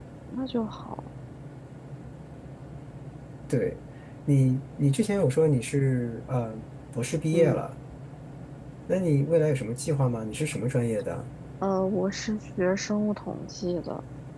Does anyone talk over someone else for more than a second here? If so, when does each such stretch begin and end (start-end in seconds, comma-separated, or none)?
none